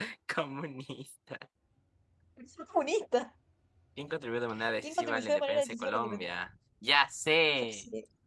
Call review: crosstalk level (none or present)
present